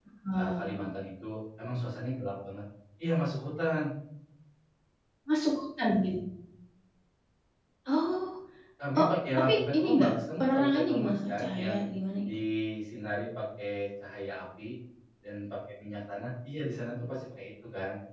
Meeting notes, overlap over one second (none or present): present